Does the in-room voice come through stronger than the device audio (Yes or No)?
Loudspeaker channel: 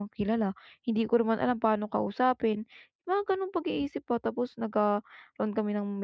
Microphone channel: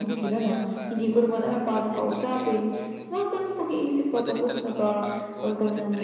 No